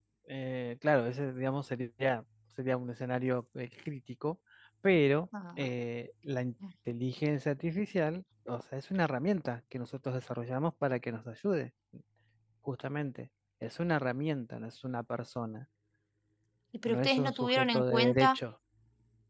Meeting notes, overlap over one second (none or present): present